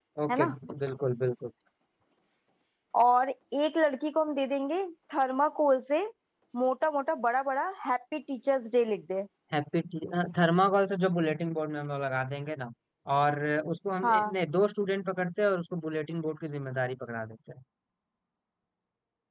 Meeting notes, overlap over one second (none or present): none